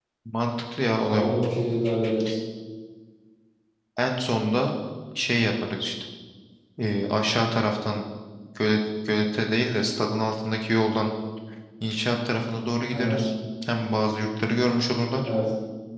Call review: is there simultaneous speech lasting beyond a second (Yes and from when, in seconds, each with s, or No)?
No